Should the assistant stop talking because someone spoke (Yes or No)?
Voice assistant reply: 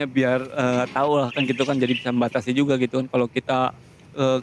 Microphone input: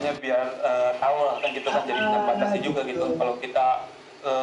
Yes